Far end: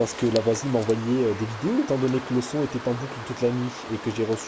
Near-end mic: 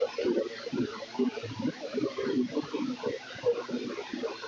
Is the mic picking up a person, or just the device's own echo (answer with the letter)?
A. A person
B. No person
B